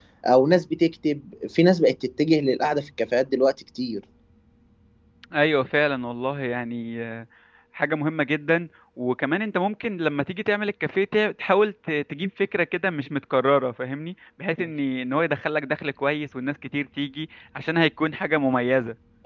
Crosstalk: none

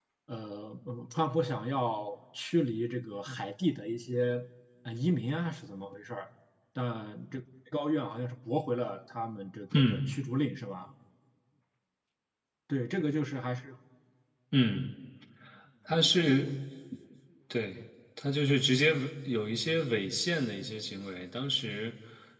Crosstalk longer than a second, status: none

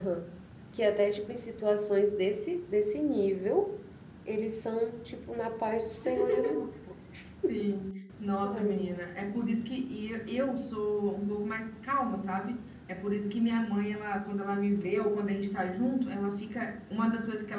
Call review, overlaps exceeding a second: none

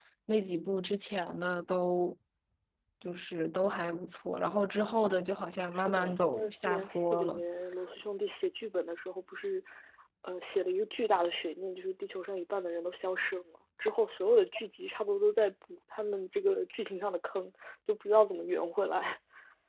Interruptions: present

